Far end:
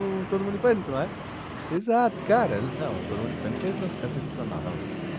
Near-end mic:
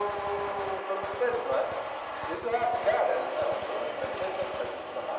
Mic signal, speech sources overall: echo only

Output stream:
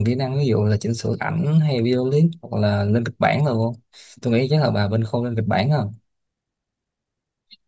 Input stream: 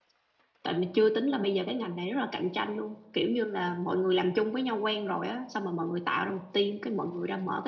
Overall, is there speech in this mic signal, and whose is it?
user only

